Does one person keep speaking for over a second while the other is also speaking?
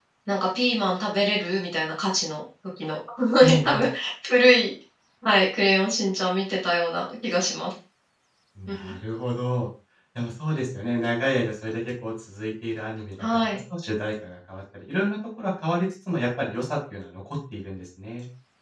No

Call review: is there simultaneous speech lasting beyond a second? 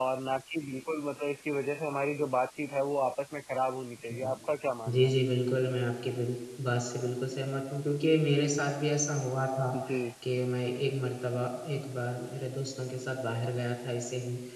No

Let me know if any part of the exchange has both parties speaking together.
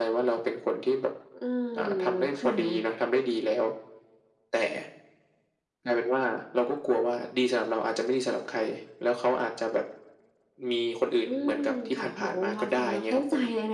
Yes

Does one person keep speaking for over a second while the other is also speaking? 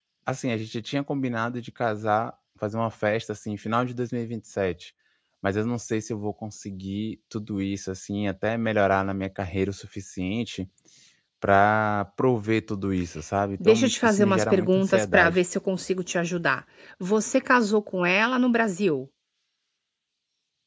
Yes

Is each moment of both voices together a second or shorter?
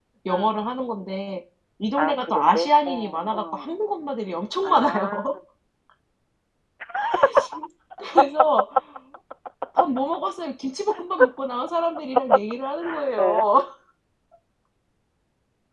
No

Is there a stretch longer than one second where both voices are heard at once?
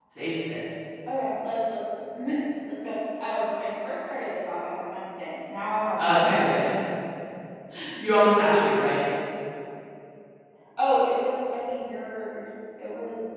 No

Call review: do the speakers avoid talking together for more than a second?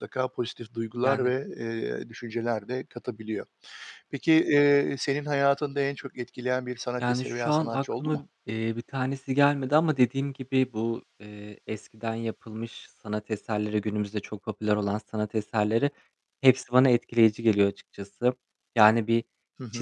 No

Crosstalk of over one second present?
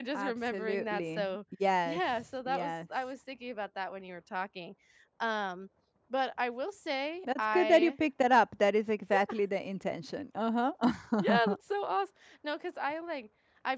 Yes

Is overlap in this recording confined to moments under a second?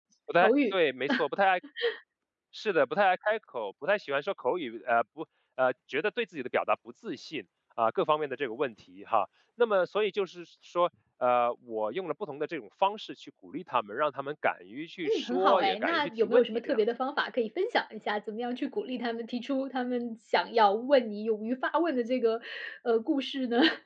No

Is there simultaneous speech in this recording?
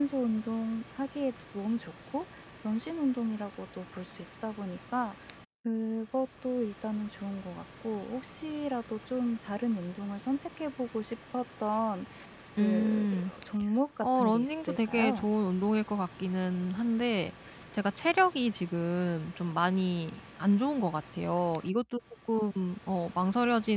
Yes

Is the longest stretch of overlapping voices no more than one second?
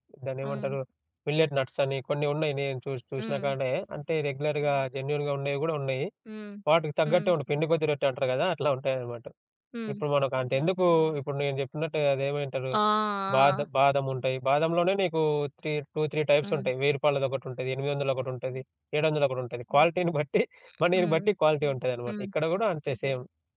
Yes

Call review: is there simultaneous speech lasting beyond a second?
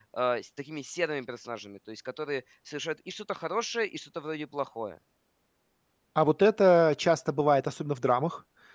No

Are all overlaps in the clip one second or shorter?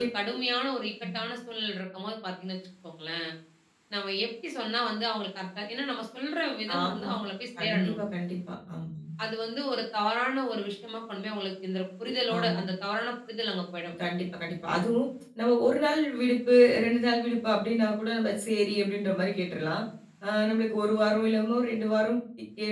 Yes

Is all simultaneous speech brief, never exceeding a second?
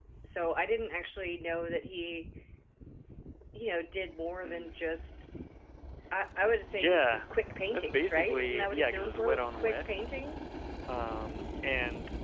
No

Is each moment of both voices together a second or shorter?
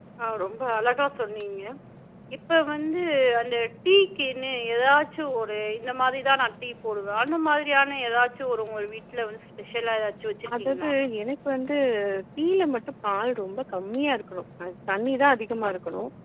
Yes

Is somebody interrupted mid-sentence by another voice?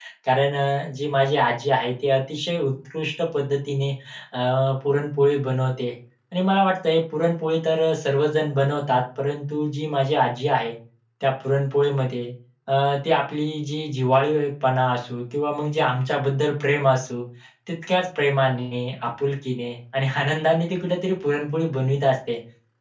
No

